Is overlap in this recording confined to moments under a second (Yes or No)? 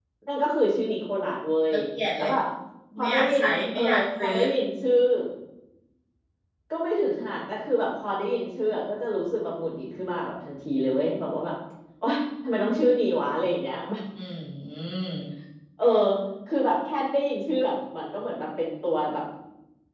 No